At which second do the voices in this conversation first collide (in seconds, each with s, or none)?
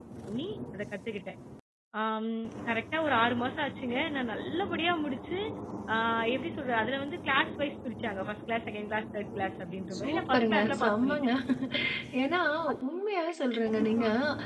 10.0 s